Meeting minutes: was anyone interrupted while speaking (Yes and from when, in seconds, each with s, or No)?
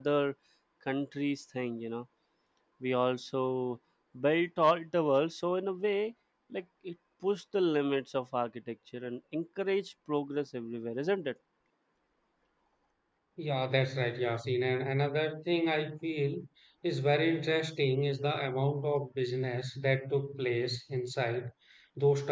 No